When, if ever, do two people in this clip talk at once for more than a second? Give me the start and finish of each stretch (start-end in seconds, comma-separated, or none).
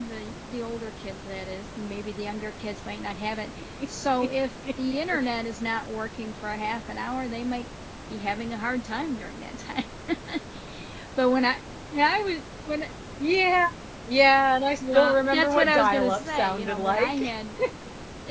14.9-17.3